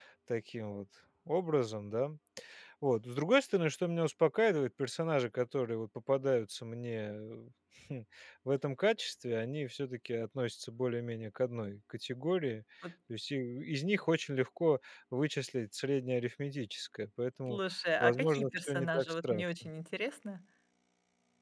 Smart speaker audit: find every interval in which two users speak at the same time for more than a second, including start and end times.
18.0-19.7

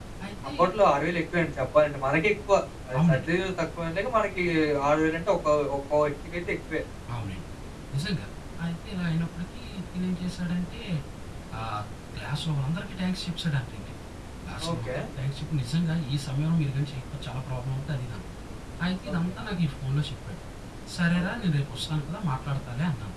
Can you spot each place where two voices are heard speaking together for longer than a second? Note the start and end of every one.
none

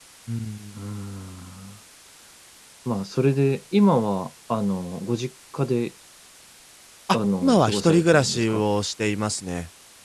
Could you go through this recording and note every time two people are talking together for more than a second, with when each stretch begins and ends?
7.1-8.6

